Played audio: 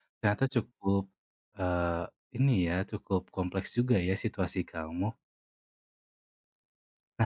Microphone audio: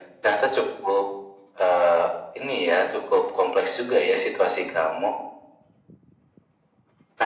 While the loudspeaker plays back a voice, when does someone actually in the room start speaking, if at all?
none

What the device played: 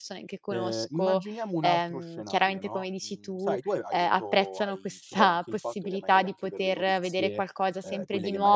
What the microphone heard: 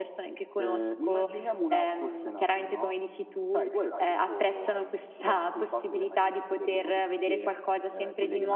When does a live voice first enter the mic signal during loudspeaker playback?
none

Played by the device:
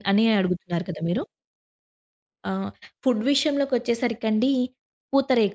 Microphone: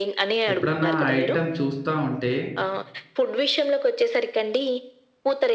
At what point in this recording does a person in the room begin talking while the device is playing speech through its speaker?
0.5 s

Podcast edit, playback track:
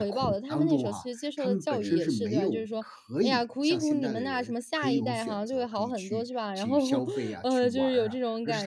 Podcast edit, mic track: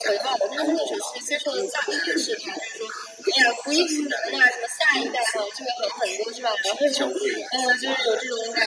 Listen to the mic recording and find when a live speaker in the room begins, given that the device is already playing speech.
none

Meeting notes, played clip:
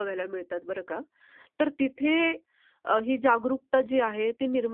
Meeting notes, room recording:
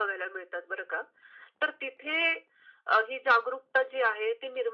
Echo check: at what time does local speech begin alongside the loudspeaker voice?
none

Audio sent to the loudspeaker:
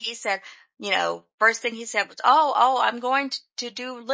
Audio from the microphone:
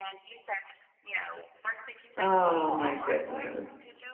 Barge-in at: 2.2 s

